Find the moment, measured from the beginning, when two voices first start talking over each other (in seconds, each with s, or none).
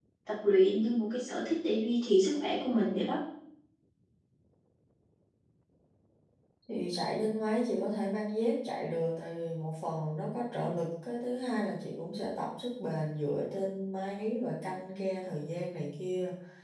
none